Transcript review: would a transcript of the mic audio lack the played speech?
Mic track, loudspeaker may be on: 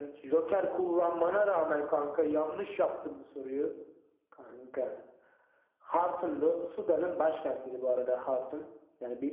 No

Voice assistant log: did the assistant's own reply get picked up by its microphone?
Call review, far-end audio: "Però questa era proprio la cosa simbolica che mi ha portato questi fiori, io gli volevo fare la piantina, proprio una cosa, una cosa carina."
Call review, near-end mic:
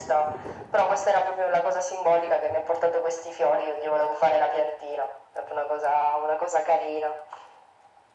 Yes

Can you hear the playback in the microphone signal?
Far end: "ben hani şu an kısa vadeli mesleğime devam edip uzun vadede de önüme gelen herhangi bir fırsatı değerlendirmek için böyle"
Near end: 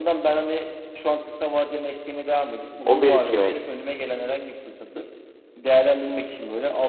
Yes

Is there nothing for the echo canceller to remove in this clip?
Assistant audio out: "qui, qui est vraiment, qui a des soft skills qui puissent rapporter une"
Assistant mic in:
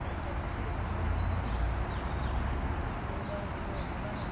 Yes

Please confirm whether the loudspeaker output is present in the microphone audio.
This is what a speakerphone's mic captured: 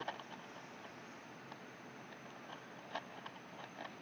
No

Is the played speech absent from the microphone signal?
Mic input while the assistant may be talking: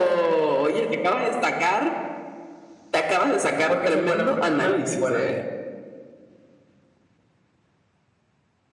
No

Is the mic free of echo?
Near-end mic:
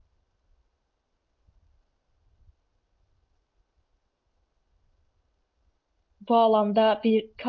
Yes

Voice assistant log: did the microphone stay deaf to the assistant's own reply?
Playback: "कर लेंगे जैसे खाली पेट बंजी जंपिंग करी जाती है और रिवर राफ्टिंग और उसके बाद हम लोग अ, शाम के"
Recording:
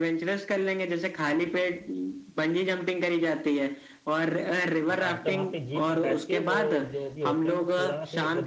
No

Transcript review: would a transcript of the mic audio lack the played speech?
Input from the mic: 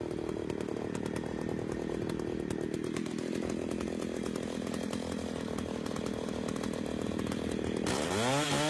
Yes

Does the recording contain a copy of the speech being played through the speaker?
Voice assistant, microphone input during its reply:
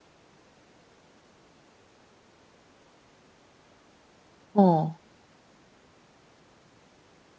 No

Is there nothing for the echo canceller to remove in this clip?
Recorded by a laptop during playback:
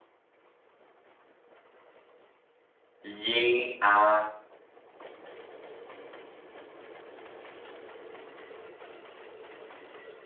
Yes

